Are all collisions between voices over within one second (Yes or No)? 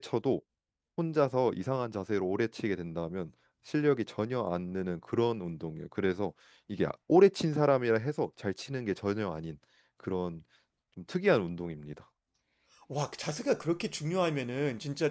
Yes